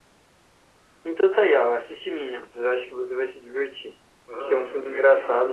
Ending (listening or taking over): taking over